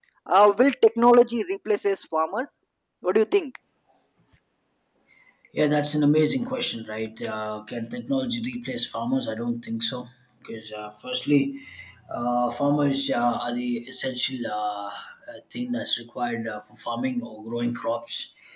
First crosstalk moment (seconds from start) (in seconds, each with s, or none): none